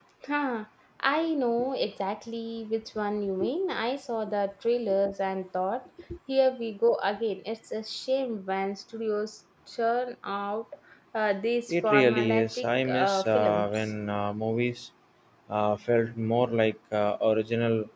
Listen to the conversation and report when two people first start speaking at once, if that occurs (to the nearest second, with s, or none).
12 s